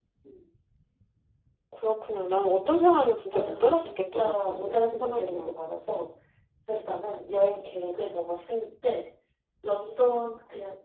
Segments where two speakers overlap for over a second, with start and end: 3.3-5.6

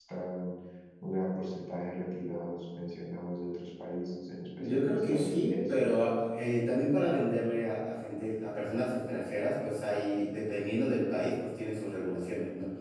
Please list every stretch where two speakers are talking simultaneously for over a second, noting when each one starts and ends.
4.6-5.9

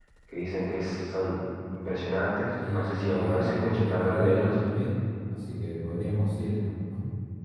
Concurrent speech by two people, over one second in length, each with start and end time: 2.7-4.5

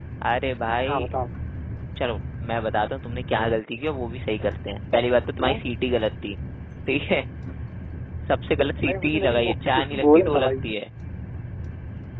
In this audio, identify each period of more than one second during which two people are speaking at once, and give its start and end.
8.9-10.5

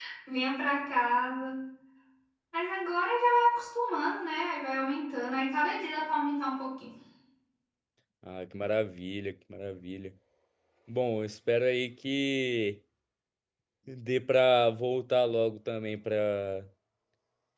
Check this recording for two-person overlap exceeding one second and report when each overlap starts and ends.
none

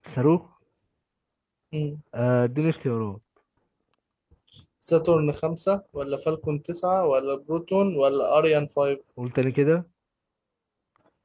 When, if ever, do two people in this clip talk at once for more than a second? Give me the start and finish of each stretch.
none

